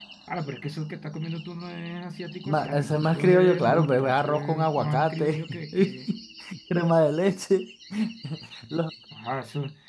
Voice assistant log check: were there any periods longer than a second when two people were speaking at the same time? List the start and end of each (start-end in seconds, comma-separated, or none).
2.5-6.0